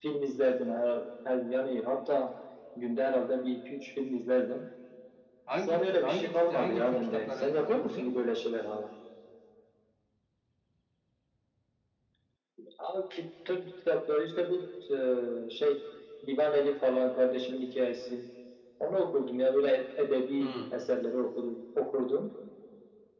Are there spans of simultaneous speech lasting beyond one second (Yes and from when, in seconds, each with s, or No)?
Yes, from 5.6 s